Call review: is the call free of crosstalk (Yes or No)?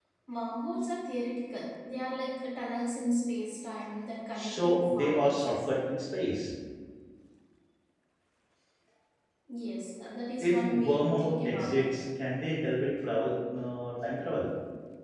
No